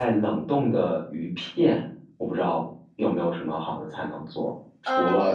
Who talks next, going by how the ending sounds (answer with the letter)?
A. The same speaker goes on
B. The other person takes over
A